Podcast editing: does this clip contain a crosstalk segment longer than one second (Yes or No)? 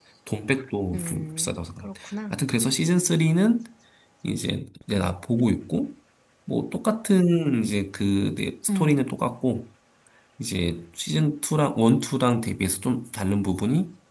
Yes